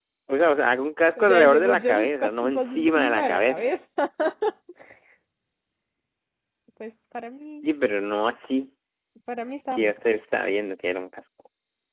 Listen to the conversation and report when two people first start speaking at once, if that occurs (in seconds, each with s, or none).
1.2 s